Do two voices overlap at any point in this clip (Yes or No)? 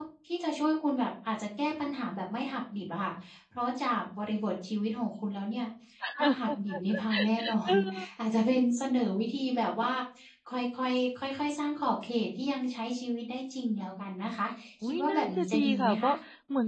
Yes